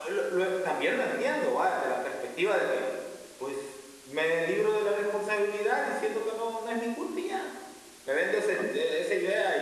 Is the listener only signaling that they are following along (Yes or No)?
Yes